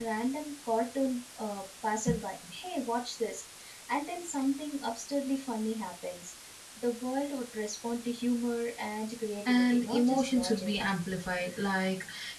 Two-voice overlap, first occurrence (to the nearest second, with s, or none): 9 s